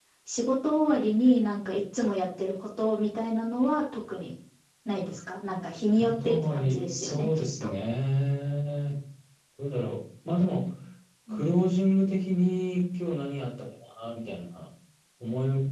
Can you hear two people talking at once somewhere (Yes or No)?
Yes